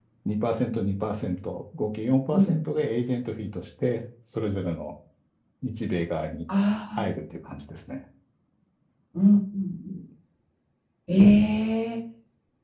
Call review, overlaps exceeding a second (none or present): none